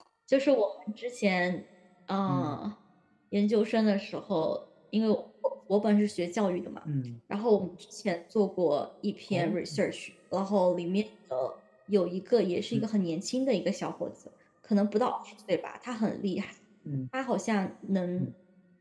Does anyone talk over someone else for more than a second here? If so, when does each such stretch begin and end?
none

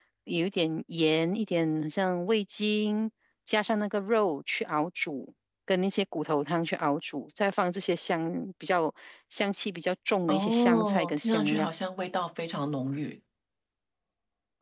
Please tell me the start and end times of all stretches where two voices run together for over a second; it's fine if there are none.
10.3-11.7

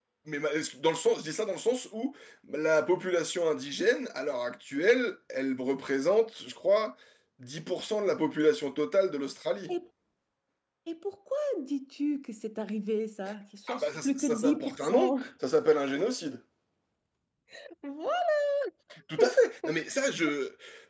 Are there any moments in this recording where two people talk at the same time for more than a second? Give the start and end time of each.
13.7-15.1

